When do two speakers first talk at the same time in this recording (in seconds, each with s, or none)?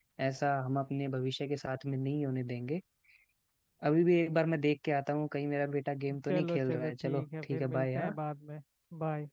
6.1 s